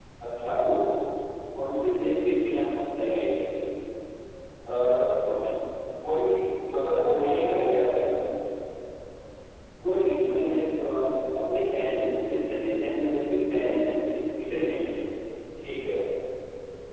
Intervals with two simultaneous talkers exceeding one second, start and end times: none

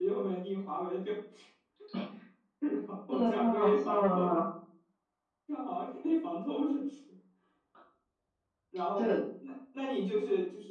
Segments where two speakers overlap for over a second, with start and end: 3.1-4.3

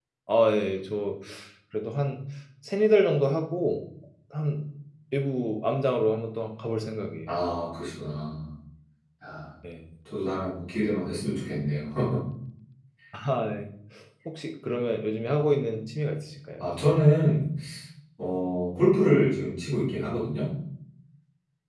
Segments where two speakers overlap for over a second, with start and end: none

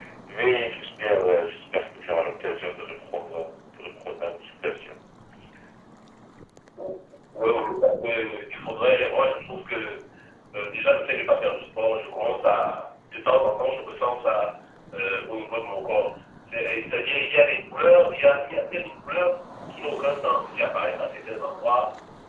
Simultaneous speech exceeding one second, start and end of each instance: none

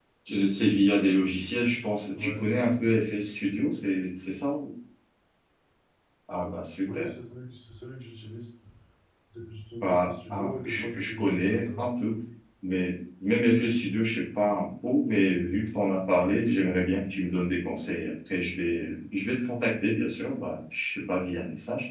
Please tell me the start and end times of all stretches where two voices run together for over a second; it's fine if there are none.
9.8-11.8

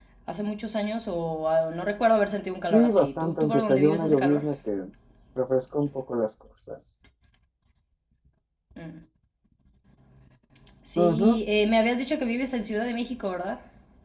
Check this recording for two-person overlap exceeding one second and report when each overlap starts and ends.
2.7-4.4

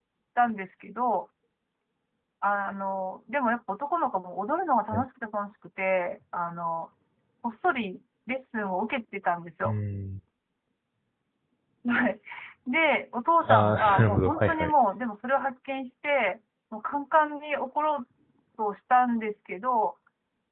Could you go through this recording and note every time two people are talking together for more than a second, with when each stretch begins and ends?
13.5-14.7

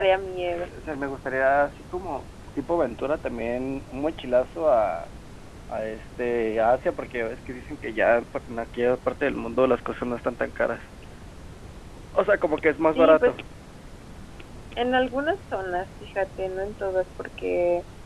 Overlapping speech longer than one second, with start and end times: none

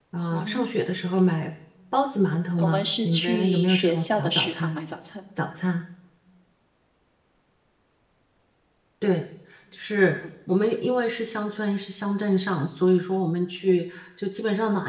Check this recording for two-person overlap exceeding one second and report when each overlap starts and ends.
2.6-4.8

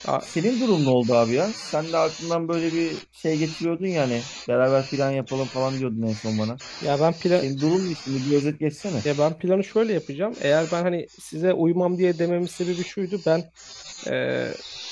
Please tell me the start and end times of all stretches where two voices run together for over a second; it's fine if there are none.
none

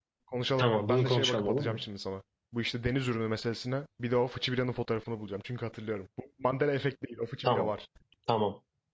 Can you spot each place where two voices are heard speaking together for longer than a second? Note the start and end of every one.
0.6-1.8

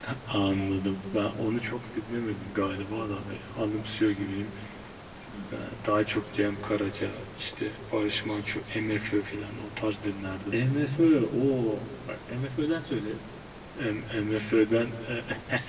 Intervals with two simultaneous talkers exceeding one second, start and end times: none

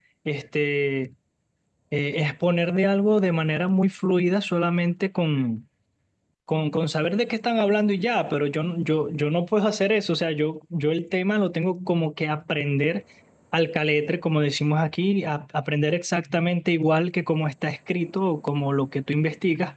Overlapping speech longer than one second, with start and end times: none

